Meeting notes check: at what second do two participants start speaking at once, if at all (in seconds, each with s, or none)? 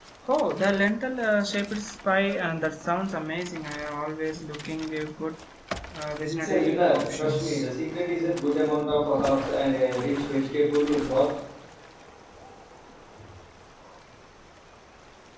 6.3 s